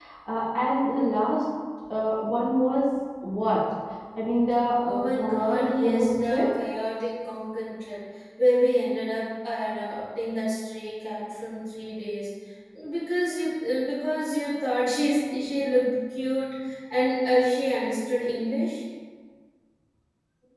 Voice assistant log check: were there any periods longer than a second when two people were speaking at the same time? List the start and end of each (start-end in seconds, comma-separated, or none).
4.8-6.5